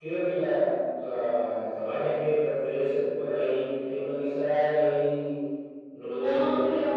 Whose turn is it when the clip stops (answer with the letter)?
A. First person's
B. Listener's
A